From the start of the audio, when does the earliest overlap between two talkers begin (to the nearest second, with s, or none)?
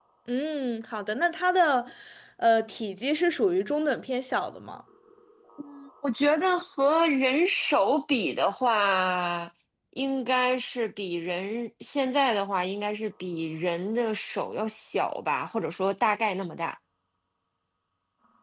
none